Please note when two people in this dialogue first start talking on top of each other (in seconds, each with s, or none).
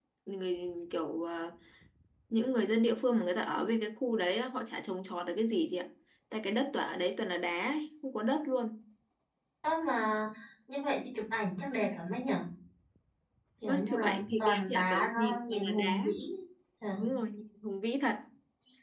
13.6 s